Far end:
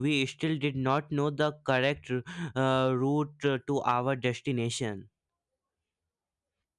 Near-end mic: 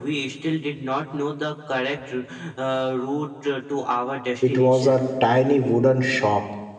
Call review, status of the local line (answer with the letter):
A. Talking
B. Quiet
A